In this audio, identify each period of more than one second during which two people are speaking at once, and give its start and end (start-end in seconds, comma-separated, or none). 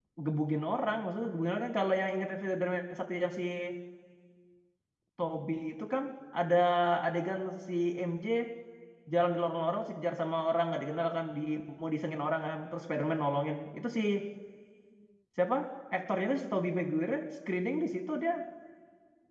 none